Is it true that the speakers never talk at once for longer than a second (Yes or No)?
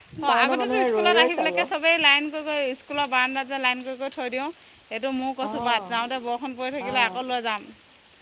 No